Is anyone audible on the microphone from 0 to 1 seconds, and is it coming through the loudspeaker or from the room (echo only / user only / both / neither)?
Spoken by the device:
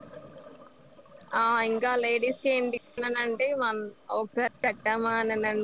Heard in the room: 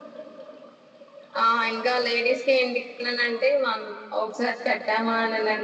neither